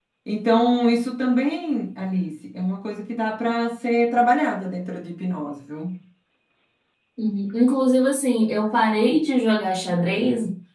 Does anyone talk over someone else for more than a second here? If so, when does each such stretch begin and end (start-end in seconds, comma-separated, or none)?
none